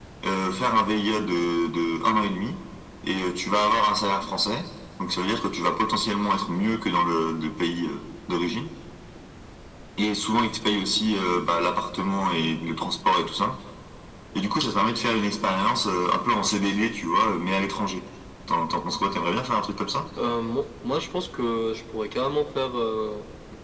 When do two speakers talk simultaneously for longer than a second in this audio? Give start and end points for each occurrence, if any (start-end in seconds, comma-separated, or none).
none